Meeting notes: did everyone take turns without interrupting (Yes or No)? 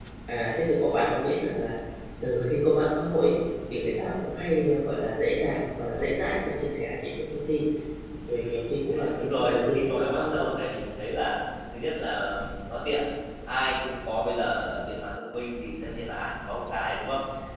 No